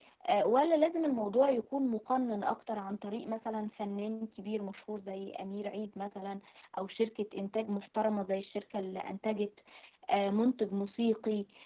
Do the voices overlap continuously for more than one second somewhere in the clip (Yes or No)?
No